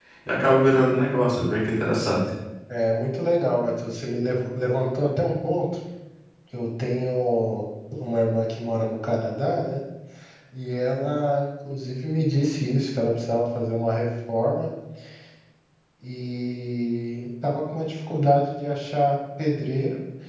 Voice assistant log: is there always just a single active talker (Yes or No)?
Yes